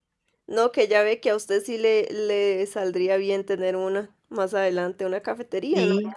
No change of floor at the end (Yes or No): Yes